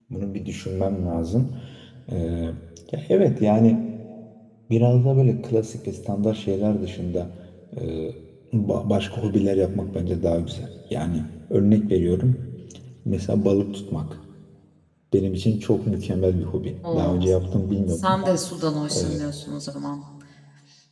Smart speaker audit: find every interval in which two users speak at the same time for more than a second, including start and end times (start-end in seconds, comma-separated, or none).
none